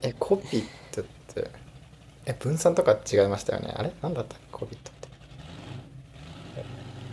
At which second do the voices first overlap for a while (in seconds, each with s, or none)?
none